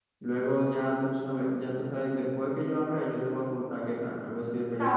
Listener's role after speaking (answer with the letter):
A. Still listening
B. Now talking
B